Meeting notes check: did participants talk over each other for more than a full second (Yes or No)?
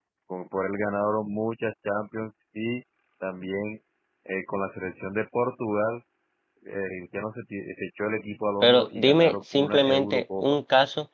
Yes